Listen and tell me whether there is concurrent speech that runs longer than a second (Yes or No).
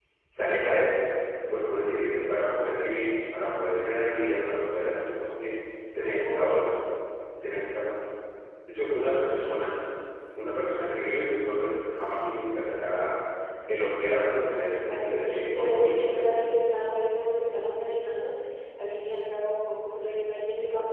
Yes